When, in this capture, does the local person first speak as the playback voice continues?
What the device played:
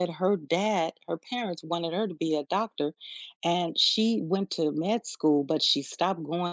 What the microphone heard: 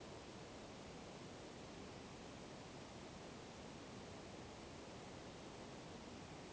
none

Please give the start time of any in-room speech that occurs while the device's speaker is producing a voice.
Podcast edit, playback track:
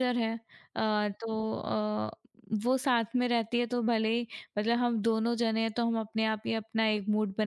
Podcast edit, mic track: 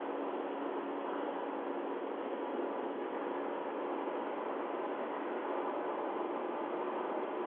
none

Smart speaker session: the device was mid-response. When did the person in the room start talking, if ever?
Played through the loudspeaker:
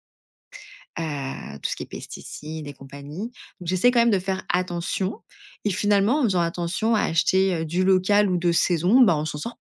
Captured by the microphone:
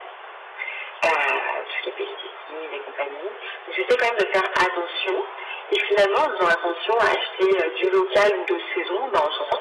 none

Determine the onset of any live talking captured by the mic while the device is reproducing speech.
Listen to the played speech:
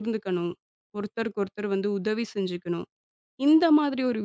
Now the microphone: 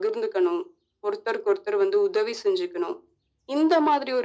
none

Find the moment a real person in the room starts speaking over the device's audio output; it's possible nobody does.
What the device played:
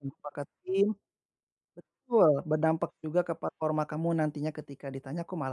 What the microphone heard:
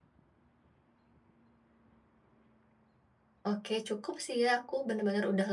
3 s

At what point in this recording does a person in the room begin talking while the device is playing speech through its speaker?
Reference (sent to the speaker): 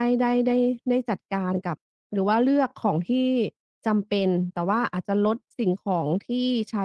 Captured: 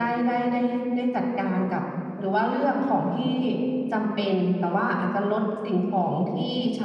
none

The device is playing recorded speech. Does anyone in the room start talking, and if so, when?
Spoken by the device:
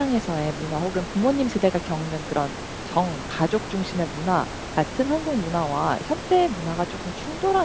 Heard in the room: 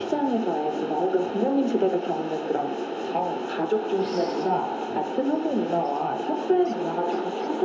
none

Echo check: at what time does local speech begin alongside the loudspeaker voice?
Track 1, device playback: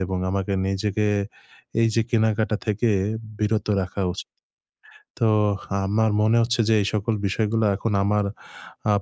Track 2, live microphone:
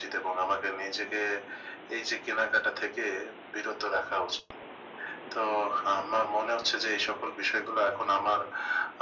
none

